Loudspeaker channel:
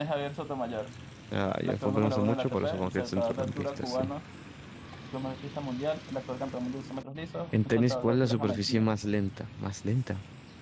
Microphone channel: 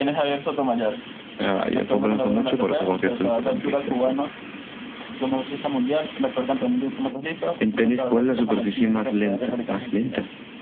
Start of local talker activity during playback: 9 s

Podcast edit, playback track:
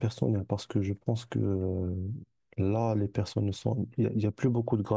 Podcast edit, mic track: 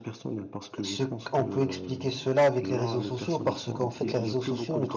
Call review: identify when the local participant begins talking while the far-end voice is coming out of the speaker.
1 s

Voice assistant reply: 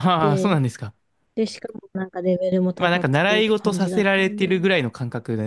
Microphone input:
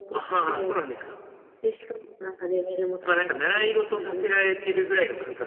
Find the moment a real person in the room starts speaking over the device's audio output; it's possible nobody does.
none

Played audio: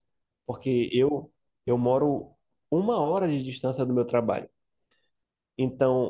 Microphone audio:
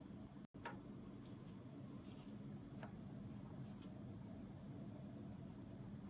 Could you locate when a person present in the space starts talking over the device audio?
none

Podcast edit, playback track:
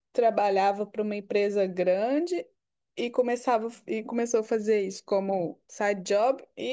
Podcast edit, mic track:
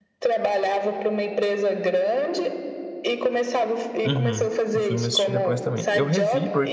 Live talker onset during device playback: 4 s

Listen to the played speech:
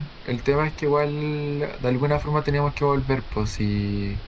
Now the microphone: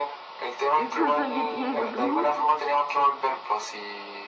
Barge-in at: 1 s

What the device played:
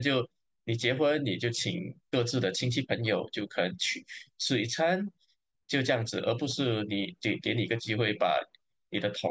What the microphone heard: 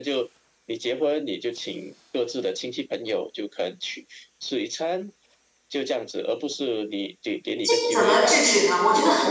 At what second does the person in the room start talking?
8 s

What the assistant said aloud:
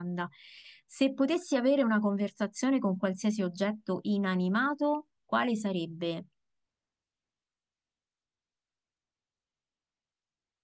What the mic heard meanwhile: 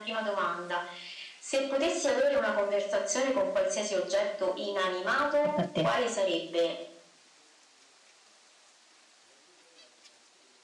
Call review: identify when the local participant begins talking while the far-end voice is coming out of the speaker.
5 s

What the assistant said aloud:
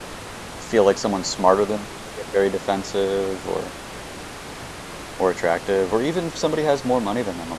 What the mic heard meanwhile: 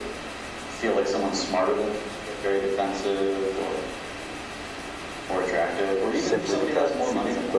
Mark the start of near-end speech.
6 s

